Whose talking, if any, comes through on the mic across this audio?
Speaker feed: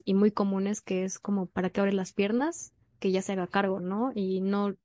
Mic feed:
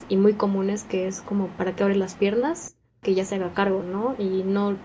echo only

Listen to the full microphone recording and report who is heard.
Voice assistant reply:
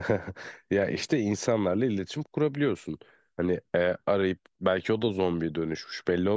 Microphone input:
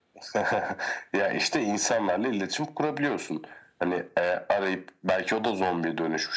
echo only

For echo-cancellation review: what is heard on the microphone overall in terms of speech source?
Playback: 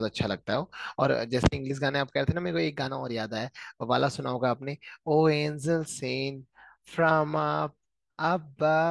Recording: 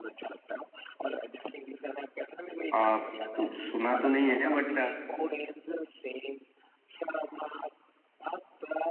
both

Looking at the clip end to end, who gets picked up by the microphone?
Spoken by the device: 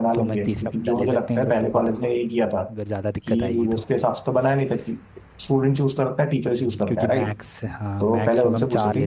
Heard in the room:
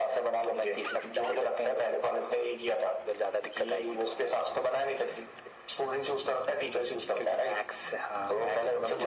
echo only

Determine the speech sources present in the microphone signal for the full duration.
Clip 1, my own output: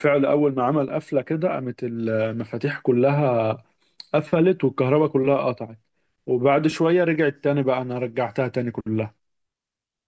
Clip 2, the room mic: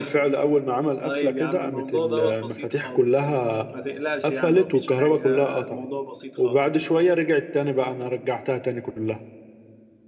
both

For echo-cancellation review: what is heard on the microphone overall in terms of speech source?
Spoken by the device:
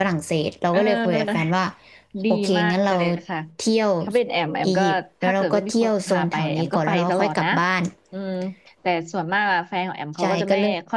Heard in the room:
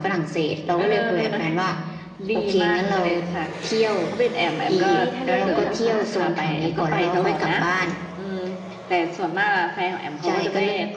both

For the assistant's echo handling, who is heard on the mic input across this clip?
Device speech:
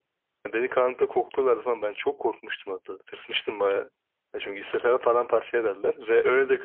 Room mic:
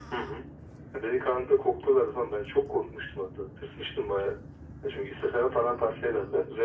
echo only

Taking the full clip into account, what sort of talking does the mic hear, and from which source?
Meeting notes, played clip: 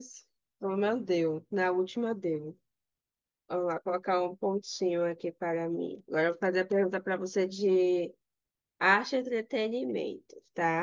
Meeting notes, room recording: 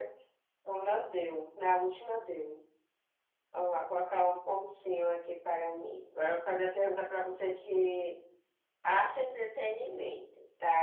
echo only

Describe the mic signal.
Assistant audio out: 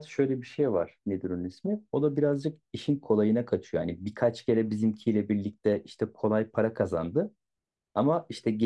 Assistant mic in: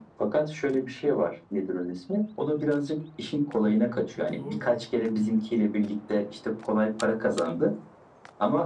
both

